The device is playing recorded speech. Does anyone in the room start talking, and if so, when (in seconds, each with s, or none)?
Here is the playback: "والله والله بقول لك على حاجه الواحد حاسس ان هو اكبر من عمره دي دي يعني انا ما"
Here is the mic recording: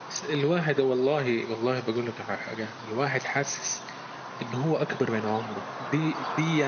none